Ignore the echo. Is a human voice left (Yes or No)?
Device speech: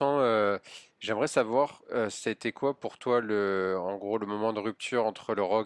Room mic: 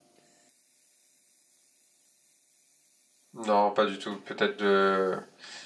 Yes